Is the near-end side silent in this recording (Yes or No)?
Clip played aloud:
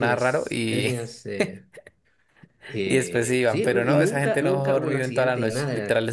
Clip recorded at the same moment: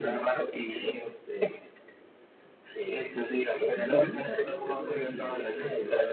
No